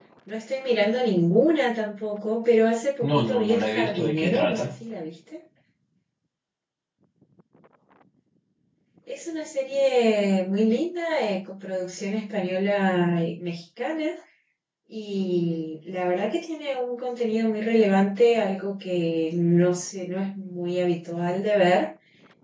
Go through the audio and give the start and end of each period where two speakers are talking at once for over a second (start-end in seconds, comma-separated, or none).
3.0-4.7